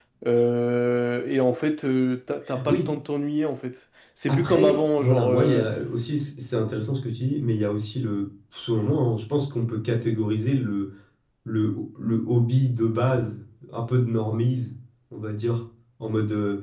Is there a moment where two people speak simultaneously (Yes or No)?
Yes